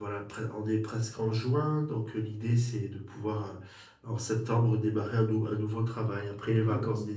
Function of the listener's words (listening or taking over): taking over